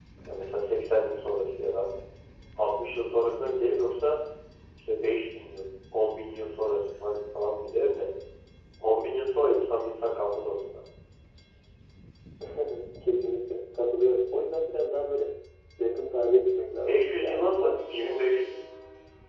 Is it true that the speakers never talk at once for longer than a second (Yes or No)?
No